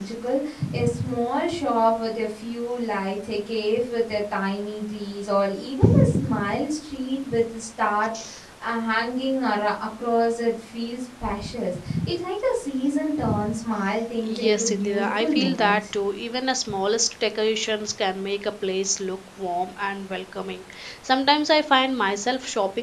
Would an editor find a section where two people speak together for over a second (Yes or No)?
Yes